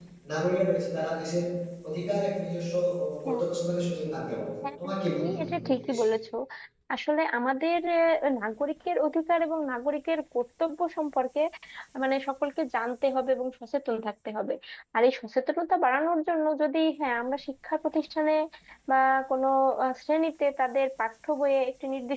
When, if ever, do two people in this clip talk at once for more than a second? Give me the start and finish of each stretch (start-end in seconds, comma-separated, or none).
4.8-6.1